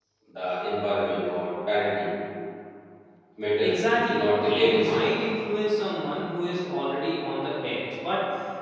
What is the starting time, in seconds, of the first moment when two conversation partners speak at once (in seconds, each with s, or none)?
3.6 s